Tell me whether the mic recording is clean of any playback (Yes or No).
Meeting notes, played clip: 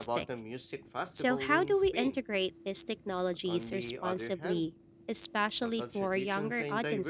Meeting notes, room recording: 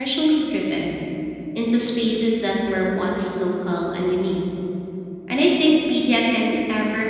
Yes